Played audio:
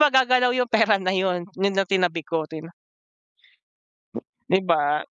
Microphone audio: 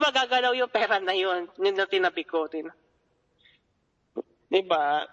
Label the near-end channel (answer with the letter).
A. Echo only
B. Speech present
A